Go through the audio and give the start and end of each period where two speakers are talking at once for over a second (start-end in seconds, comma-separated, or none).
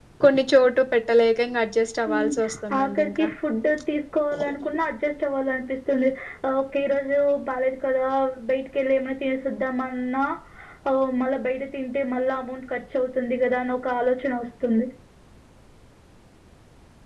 2.1-3.3